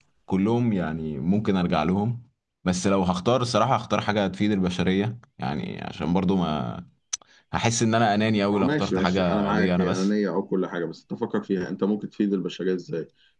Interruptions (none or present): present